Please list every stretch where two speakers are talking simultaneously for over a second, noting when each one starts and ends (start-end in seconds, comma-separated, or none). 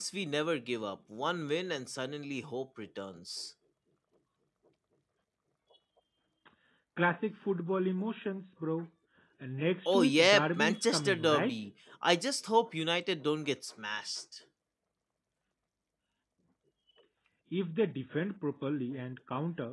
9.9-11.6